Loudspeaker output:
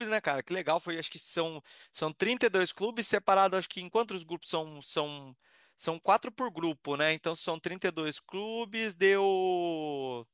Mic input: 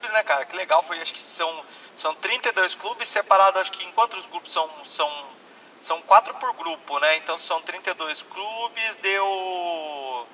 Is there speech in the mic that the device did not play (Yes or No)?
No